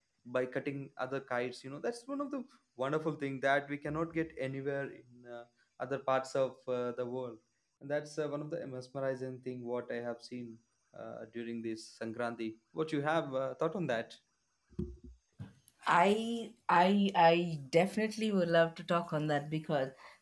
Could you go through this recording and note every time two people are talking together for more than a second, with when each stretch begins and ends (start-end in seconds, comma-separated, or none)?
none